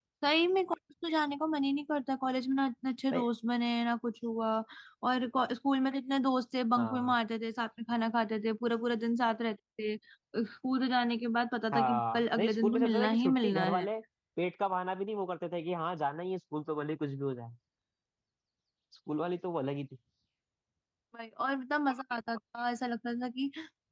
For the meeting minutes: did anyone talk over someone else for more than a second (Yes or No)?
Yes